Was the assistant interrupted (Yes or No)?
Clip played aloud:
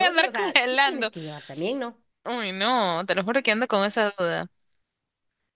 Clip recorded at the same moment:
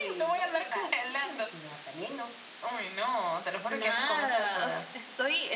Yes